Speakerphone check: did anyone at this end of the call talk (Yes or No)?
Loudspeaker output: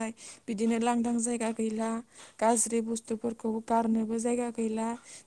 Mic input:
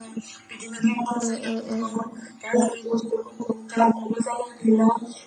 Yes